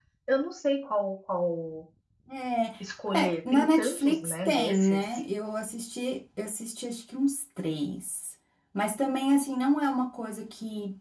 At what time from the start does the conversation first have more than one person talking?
3.2 s

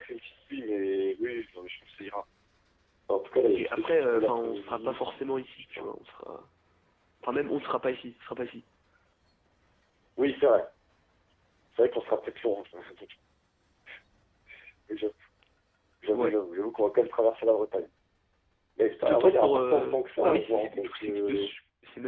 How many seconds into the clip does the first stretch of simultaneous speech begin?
3.5 s

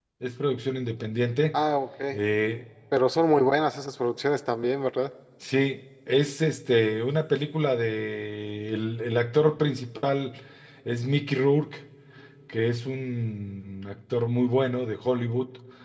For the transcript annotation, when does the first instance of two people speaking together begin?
none

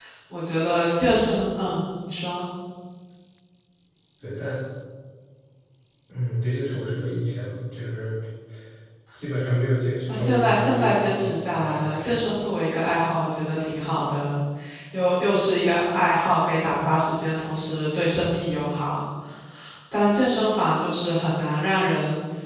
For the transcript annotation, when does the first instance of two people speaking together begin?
10.1 s

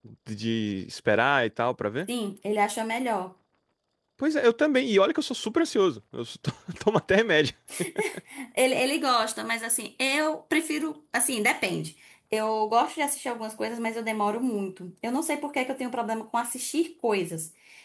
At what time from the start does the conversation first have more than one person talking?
none

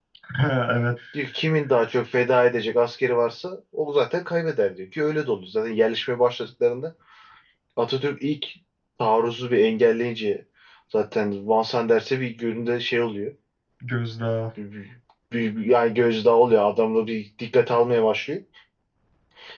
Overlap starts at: none

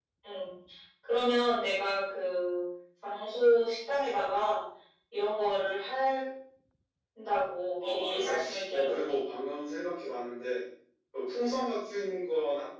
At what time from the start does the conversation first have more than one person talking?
7.8 s

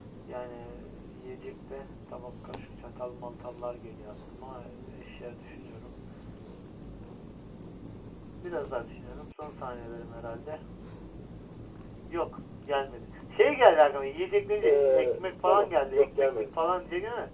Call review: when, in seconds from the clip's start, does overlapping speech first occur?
14.6 s

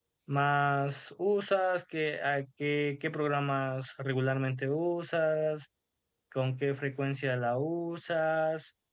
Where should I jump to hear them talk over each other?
none

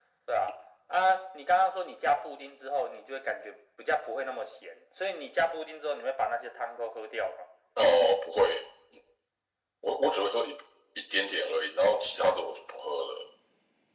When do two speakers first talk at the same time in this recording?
none

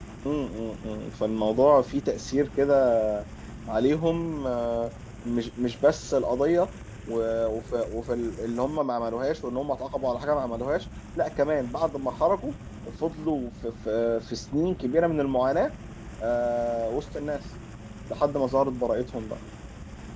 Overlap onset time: none

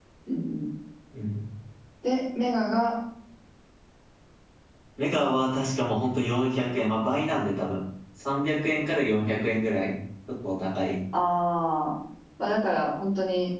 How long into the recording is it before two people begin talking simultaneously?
none

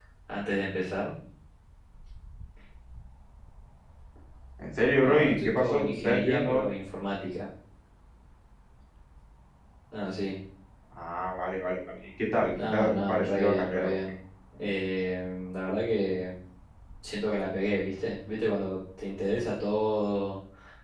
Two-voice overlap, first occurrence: 5.0 s

